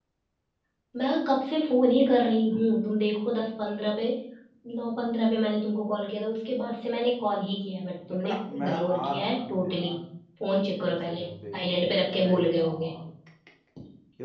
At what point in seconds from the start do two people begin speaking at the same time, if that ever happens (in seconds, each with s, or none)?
8.1 s